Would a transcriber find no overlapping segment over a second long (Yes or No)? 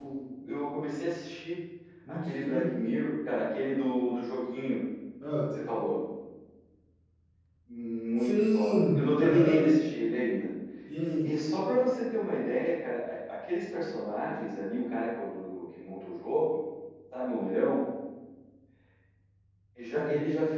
No